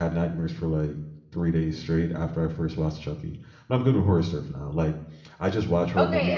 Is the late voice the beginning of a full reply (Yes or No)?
Yes